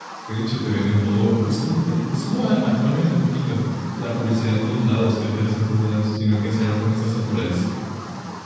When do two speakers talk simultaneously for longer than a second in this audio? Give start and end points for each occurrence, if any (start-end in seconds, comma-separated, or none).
none